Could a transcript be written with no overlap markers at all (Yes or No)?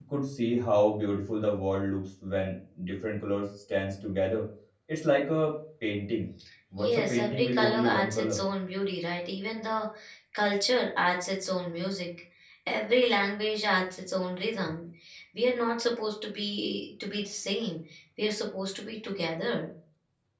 No